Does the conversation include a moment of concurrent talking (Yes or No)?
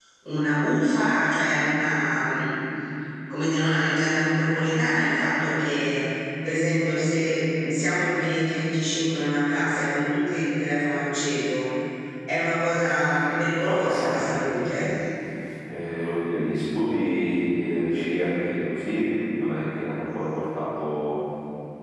Yes